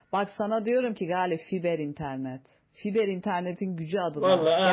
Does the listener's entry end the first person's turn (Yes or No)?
Yes